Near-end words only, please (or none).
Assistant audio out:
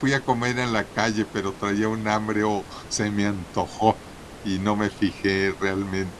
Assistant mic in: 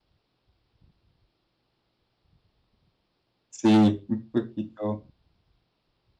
Sí, un poquito.